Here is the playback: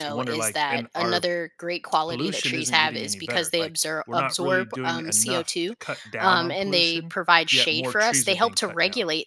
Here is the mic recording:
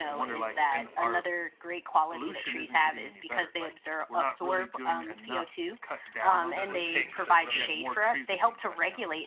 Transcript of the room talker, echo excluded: does it take to really,

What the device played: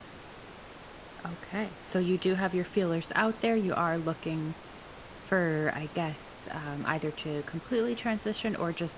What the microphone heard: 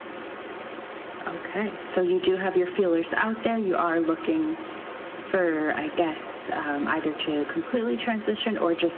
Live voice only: none

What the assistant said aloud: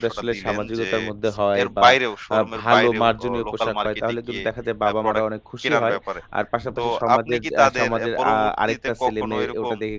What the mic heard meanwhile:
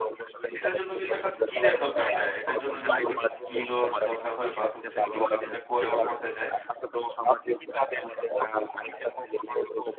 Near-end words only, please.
এটার জন্য কিন্তু একটা স্কিলের দরকার হয়। এটার জন্য কিন্তু একটা স্কিলওর দরকার হয়। প্লাস হচ্ছে কেউ যদি এটা করে বা করতে চায়,

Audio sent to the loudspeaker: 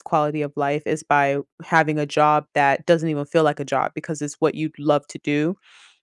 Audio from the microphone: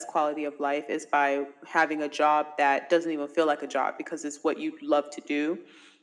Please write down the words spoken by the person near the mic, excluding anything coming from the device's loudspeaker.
none

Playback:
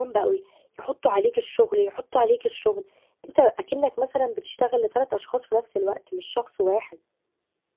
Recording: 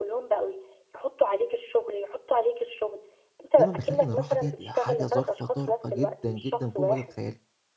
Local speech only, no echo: دايمًا باخلّي إن الراحة ديّة ل حاجة ظرف طارئة جدًا، جدًا فوق ما تتخيّلي.

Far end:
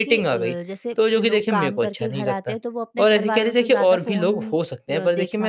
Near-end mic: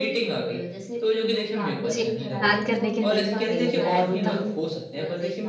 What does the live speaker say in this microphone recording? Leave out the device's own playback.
जी, आपकी बात करने के तरीके से ही लग रहा है वो तो।

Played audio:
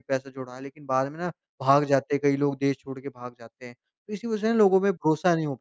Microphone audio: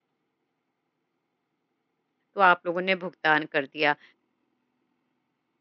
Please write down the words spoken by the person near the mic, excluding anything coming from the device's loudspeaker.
तो आप लोगों ने भुगतान कर दिया।

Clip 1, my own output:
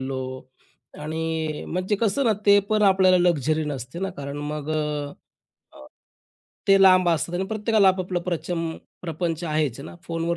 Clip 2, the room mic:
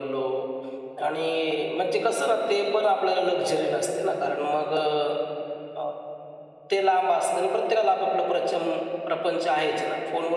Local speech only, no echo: none

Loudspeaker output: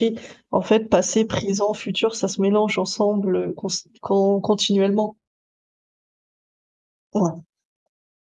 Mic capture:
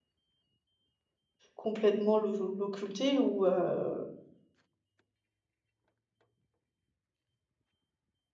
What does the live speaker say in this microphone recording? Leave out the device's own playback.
complètement l'o l'occulter ou heu,

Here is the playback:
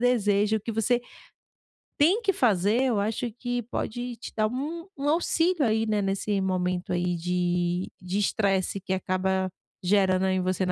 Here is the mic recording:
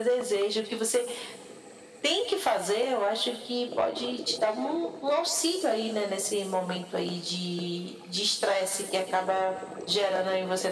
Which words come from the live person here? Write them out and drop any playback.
none

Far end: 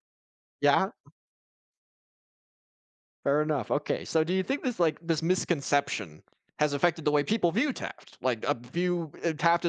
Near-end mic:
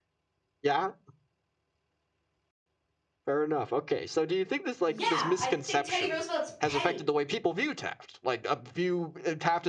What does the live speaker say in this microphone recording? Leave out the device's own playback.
Yeah, I think Teddy Roosevelt's petty.

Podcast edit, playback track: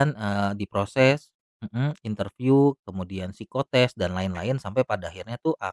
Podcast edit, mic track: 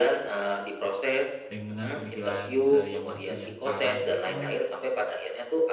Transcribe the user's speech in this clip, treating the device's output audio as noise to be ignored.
dengan pemikiran, eee, yang Mas punya sekarang itu

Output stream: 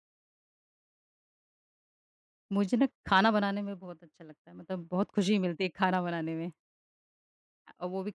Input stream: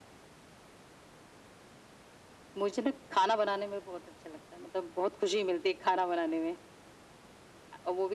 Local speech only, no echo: none

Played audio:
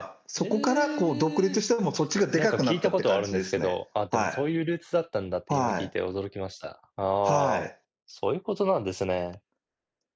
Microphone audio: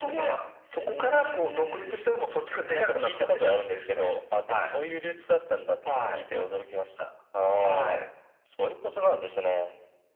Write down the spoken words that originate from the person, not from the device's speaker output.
none

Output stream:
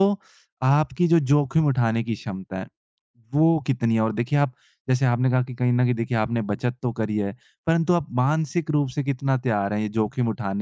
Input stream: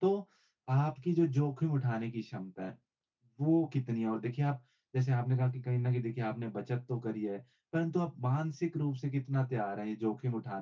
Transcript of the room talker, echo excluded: none

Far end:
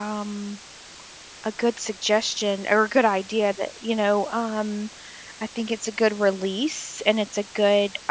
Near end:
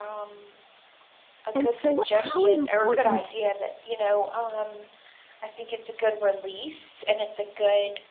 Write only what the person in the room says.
And so, how important

